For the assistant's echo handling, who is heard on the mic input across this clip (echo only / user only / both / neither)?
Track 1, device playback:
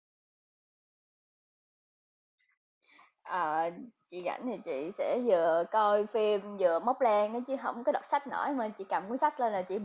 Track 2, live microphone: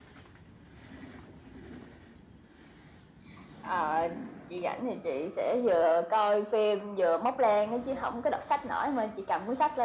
echo only